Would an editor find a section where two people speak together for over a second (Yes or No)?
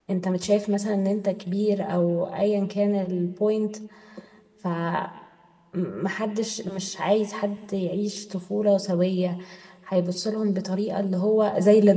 No